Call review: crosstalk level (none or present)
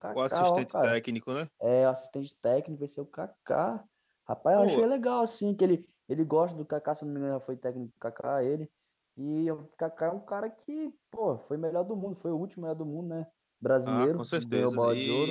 present